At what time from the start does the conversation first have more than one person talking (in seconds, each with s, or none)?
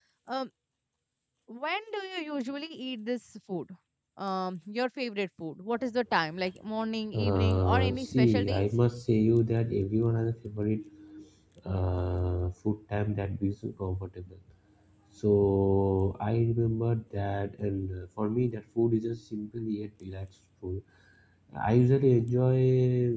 7.1 s